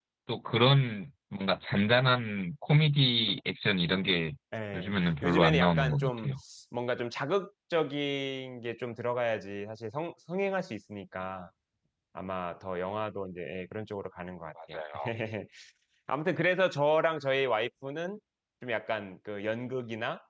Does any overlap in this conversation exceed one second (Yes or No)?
Yes